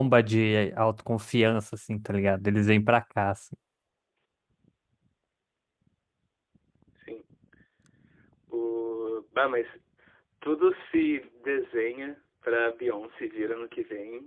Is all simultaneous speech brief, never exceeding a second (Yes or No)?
Yes